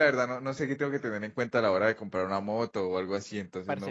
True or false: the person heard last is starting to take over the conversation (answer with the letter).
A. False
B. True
B